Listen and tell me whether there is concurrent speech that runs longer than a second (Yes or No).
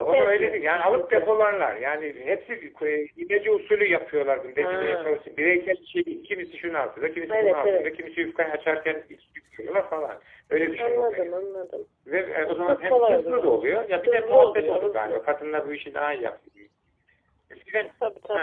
Yes